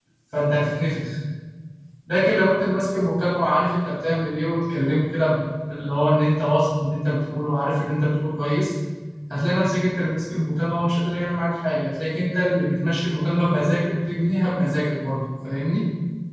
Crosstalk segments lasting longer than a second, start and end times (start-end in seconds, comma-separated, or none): none